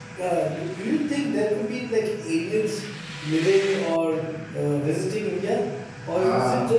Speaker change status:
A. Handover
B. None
B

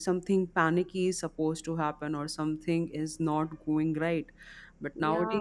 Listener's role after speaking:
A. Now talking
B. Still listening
B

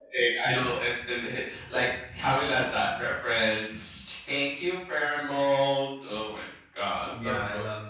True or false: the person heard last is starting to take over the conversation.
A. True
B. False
A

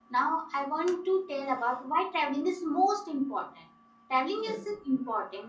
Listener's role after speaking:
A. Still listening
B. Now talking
A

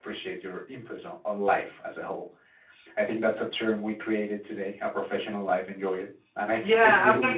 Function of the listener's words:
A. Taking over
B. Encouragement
A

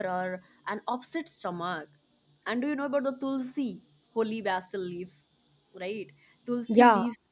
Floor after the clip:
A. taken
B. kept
B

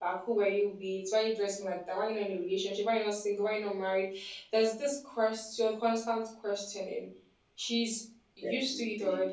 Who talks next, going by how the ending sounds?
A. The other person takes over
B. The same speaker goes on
B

